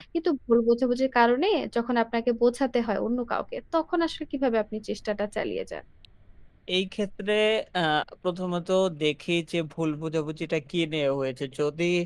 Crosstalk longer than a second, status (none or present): none